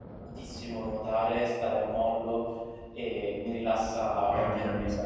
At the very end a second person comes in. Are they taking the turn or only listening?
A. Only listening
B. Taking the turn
B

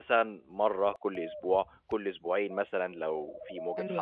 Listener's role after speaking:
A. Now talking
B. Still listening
A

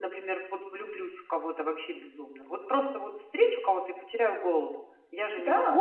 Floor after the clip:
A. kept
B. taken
B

